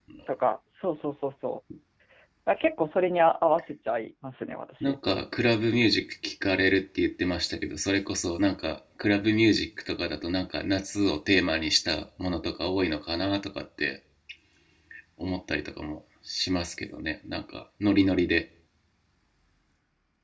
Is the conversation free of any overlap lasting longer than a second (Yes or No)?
Yes